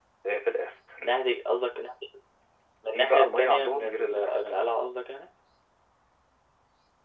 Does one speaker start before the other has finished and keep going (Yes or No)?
Yes